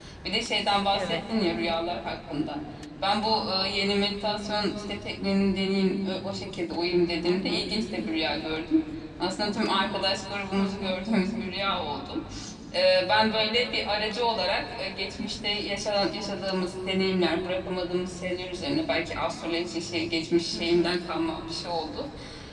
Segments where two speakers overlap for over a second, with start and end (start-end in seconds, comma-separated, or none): none